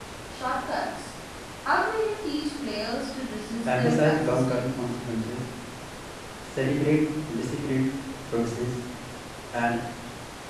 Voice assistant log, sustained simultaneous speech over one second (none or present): present